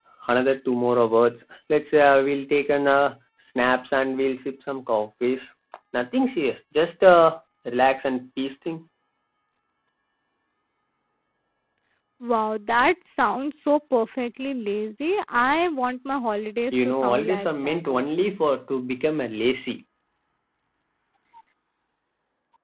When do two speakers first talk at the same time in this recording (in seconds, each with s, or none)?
16.7 s